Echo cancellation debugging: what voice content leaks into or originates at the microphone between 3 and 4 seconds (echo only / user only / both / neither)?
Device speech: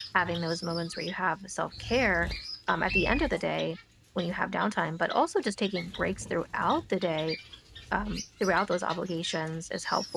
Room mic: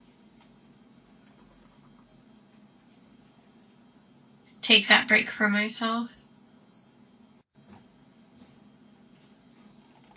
neither